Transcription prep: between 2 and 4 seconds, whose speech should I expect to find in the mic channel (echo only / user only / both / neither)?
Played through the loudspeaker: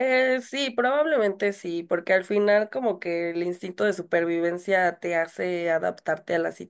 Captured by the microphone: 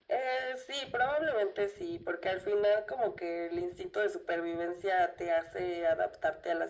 echo only